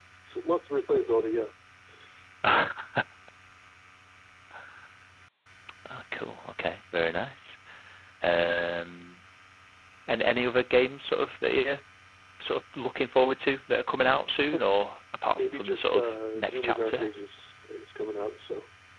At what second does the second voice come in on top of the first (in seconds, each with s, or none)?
15.4 s